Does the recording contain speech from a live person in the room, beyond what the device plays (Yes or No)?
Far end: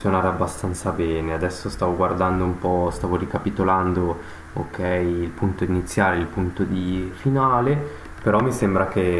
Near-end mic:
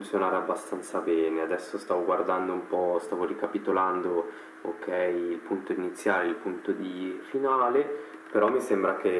No